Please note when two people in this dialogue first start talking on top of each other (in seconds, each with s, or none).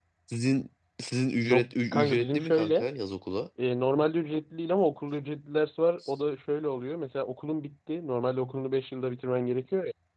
1.4 s